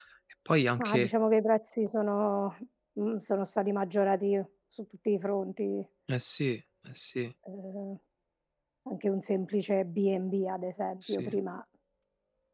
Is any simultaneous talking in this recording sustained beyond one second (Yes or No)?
No